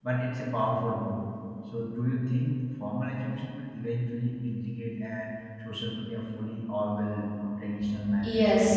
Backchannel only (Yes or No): No